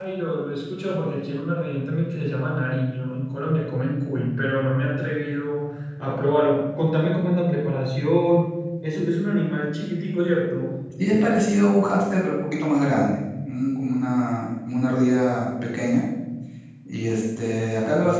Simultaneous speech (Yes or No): No